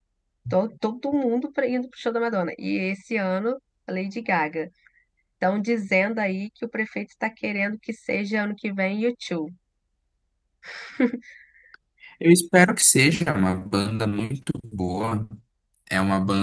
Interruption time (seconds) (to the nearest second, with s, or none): none